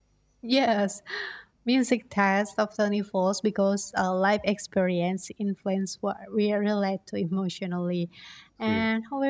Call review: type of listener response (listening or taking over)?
listening